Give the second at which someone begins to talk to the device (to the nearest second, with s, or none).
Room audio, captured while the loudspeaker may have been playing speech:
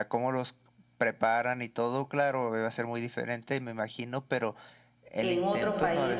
5 s